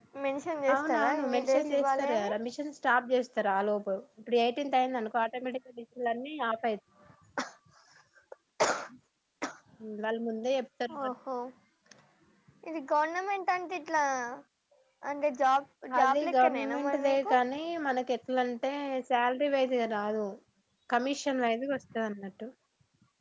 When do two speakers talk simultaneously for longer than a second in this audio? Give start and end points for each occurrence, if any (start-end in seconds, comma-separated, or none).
0.7-2.3, 16.0-17.3